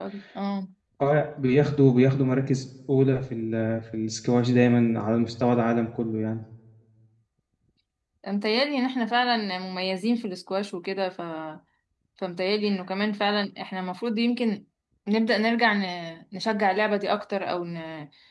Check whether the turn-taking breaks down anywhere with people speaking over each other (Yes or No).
No